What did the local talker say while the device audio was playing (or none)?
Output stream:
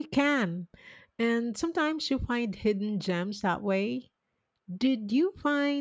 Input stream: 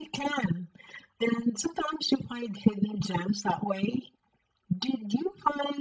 none